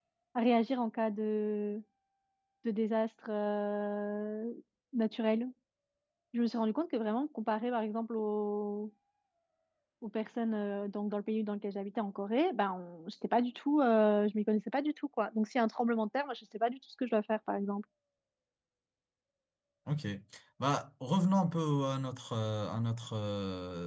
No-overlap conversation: Yes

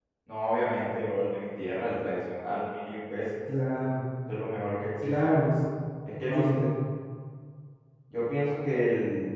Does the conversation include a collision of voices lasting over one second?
No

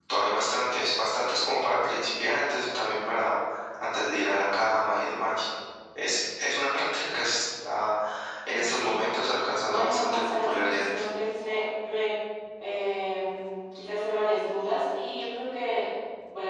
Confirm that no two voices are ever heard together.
No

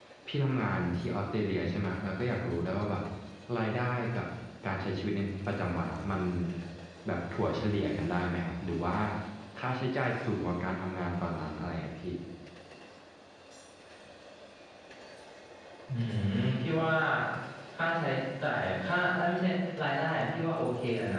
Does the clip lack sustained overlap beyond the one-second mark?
Yes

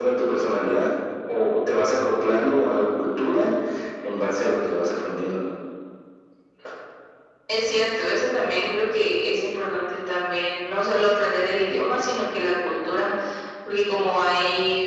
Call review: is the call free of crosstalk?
Yes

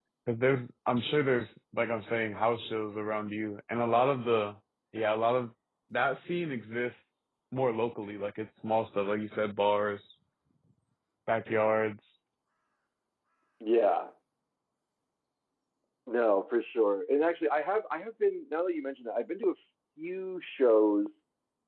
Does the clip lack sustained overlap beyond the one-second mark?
Yes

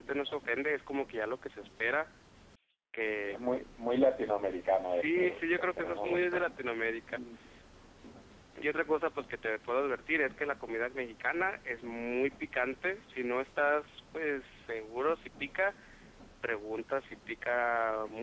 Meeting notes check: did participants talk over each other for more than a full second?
Yes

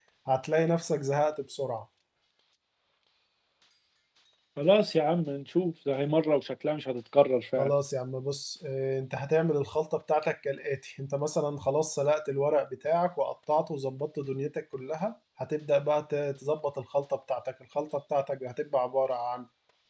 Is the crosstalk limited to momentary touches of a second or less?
Yes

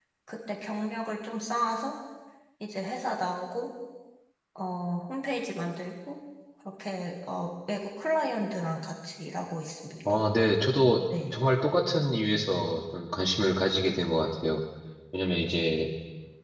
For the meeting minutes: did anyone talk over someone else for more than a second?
No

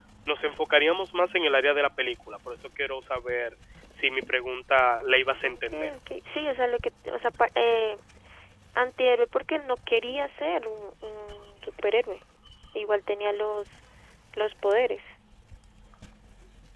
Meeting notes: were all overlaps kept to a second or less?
Yes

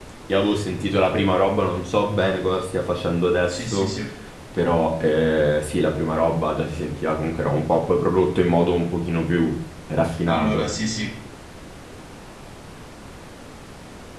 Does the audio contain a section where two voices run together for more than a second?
No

